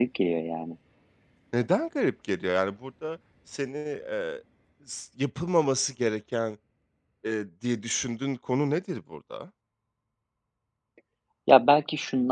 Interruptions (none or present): none